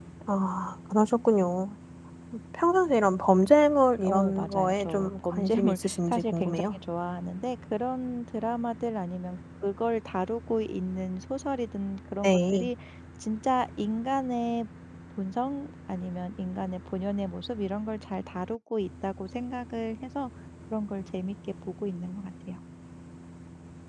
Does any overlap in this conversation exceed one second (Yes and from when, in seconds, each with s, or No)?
Yes, from 4.0 s